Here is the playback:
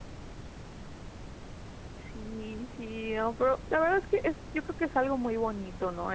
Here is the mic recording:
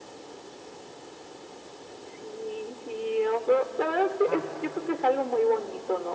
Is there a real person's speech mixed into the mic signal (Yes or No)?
Yes